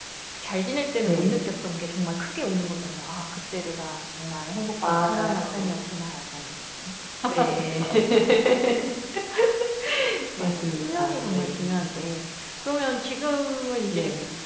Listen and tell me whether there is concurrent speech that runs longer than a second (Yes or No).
Yes